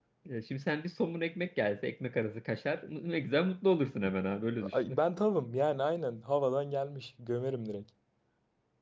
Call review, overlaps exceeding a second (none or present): none